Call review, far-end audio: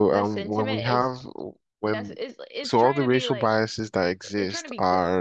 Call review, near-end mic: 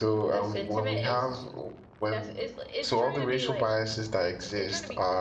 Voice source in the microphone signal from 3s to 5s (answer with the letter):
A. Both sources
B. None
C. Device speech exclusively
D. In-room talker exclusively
C